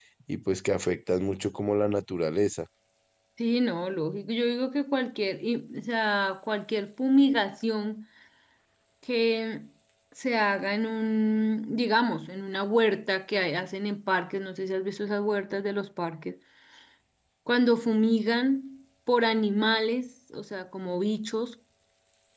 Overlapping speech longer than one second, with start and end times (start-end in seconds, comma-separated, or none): none